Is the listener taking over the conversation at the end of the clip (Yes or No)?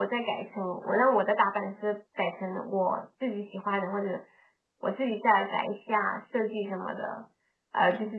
No